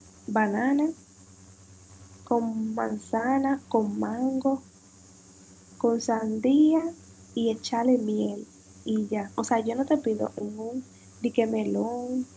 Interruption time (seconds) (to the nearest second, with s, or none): none